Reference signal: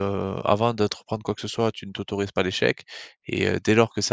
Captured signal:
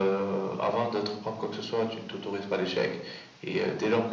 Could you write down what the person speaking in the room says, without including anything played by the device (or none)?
none